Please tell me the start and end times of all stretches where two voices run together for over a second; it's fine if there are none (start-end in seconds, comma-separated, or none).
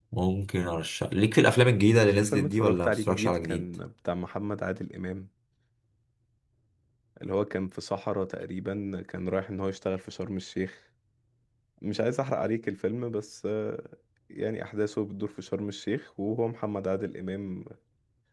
2.0-3.6